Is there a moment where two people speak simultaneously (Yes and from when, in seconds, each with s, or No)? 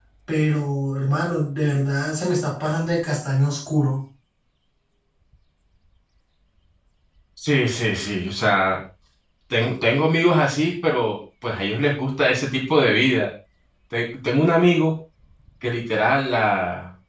No